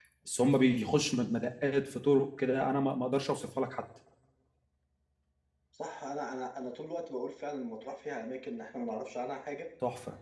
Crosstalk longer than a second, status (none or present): none